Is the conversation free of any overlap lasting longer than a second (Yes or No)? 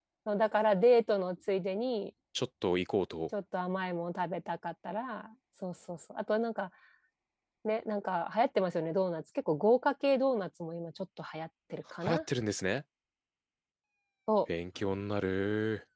Yes